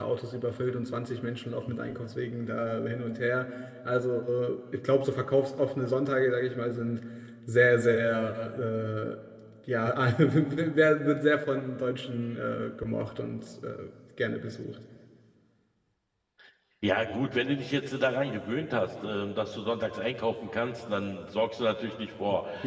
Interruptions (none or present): none